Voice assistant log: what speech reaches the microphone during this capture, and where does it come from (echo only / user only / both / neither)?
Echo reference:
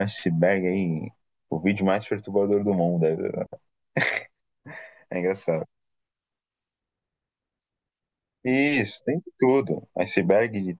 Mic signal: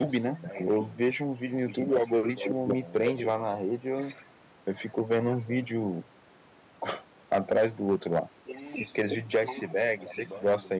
both